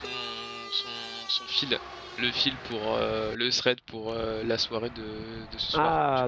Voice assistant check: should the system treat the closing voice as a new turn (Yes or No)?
Yes